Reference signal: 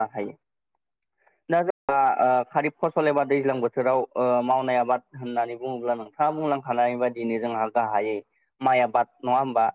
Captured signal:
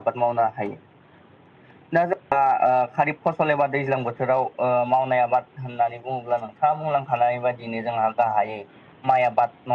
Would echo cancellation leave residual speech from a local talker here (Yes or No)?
No